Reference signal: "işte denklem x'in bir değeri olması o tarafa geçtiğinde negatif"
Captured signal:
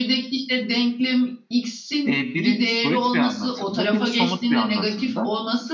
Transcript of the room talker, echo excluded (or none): e, biri soyut bir anlatımda, biri somut bir anlatımda.